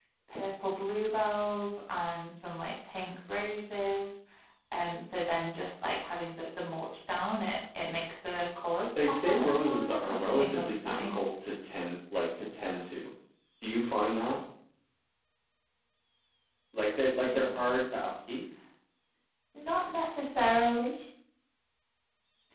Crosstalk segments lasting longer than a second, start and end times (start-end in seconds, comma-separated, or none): 9.0-11.3